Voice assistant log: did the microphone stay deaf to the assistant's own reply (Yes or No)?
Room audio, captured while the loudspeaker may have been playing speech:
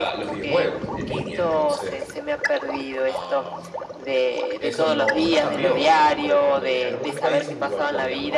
No